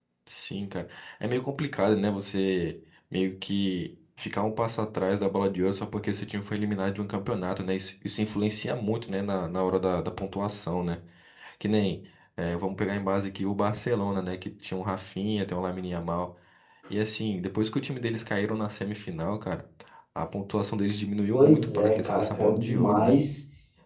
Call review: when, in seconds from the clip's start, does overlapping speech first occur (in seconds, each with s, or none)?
21.3 s